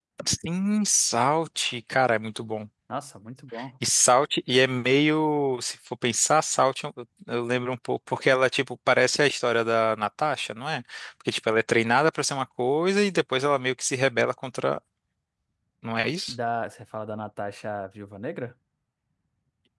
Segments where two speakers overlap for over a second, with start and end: none

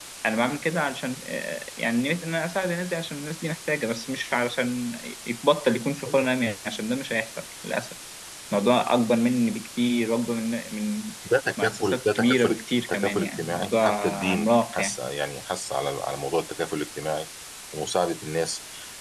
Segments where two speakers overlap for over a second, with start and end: 11.6-15.0

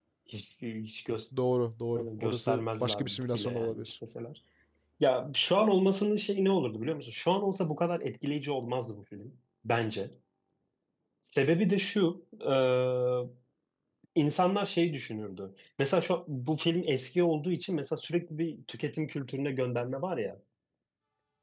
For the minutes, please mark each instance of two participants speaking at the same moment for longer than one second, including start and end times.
1.9-3.9

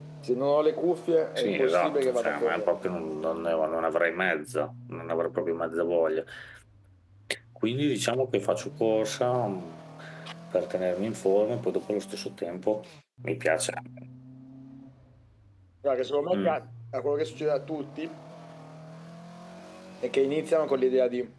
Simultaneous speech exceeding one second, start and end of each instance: 1.4-2.7

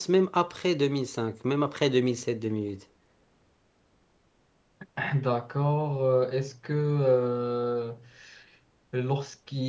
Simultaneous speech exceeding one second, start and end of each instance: none

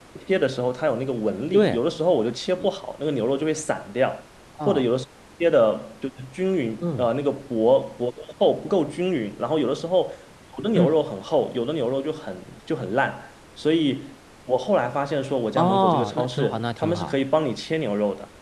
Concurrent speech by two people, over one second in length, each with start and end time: 15.6-17.1

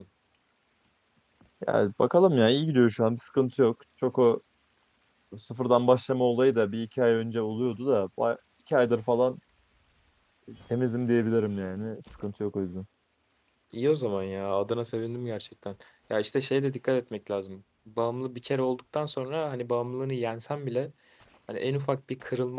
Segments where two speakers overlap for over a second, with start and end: none

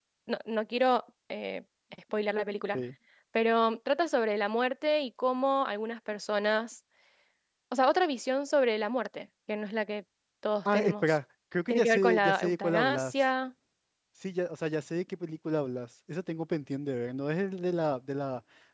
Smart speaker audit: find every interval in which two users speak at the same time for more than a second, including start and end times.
11.7-13.1

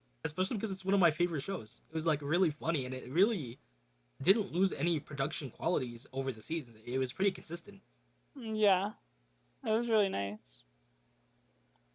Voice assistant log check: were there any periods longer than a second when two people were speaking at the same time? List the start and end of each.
none

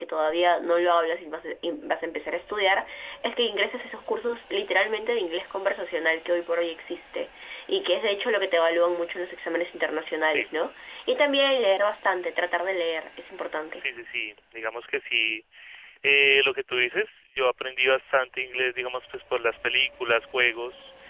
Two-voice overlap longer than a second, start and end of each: none

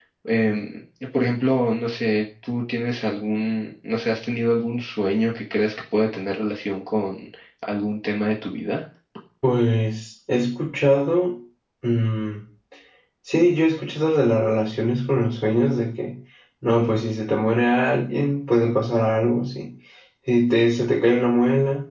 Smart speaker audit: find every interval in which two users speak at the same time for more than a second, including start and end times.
none

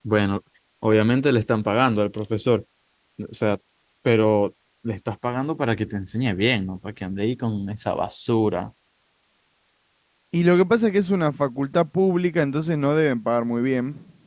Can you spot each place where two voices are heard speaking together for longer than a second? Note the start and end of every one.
none

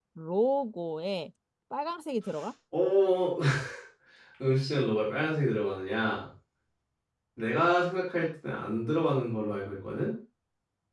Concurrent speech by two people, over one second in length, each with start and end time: none

